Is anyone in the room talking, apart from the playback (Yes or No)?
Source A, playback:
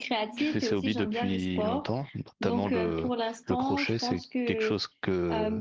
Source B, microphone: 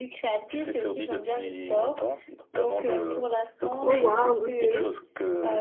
Yes